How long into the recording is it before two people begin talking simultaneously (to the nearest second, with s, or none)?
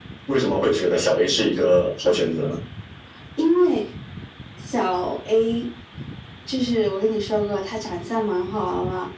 none